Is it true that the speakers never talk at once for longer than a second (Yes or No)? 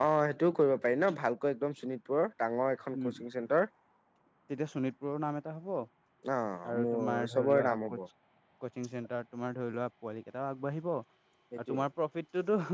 No